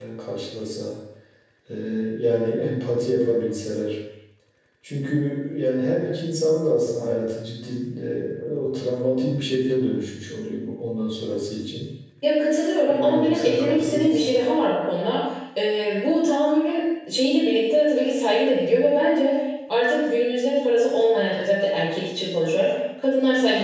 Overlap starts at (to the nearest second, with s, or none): 13 s